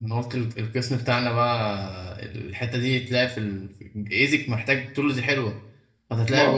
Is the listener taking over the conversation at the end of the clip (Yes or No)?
No